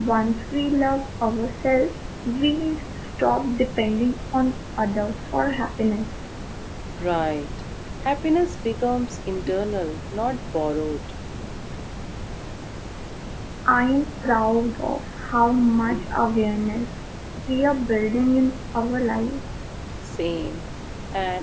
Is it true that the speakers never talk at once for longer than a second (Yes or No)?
Yes